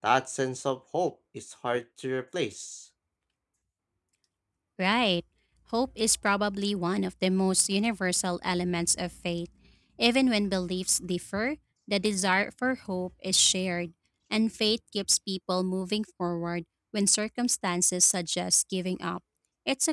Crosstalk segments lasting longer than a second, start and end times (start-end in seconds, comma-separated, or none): none